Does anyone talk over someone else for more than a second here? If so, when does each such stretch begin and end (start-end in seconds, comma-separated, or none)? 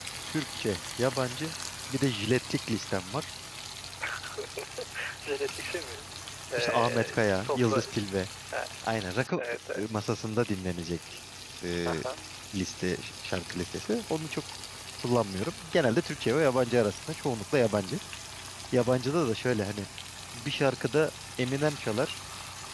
6.6-7.8